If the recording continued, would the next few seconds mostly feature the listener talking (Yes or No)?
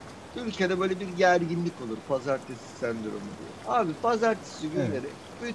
No